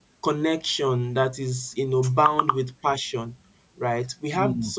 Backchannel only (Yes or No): Yes